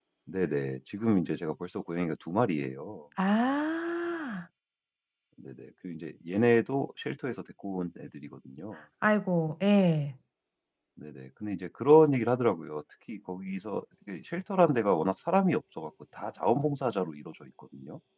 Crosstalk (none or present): none